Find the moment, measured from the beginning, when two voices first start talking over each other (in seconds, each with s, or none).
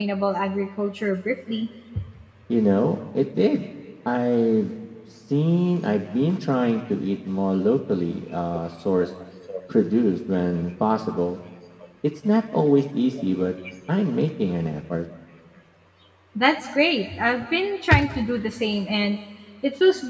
none